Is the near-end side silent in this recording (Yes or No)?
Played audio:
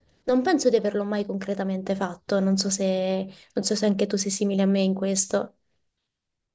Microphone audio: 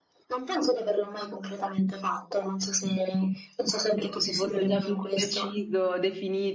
No